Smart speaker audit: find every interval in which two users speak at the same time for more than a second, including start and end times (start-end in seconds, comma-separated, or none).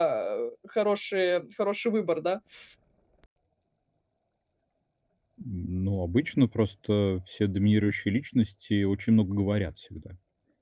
none